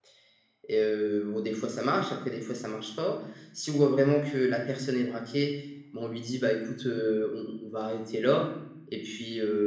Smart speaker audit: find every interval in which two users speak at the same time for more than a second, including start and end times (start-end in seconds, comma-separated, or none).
none